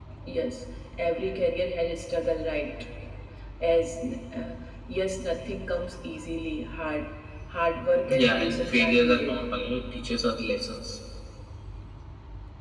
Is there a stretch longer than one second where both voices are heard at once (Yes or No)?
Yes